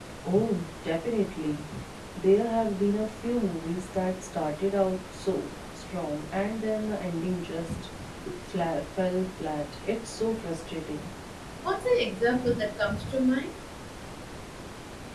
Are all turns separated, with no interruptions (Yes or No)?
Yes